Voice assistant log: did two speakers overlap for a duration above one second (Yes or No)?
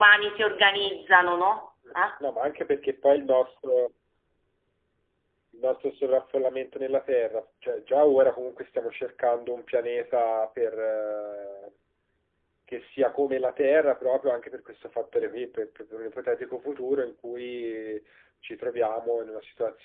No